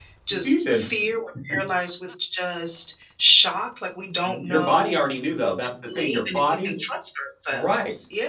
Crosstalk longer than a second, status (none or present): present